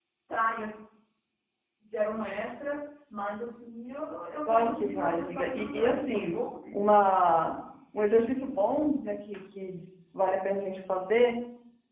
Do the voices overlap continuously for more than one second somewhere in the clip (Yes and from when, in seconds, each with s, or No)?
Yes, from 4.5 s